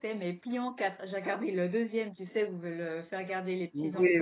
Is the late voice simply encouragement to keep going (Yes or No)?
No